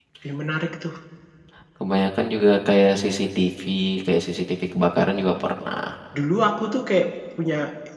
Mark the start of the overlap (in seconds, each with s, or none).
none